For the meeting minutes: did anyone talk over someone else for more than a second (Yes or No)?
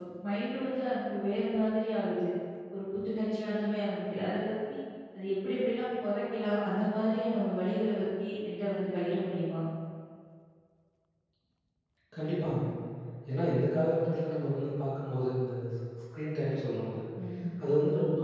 No